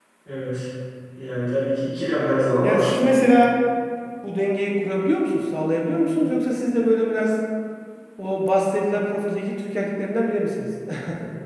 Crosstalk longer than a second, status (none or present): none